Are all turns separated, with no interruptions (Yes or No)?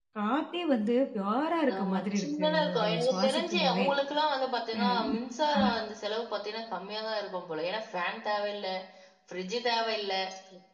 No